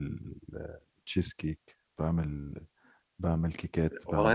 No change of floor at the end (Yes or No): No